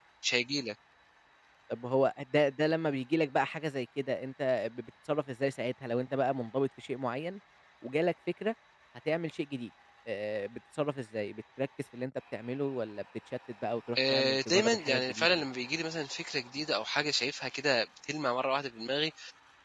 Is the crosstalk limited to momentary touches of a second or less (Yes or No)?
No